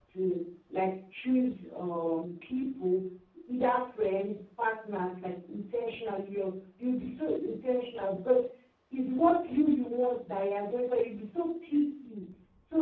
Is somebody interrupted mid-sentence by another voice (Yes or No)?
No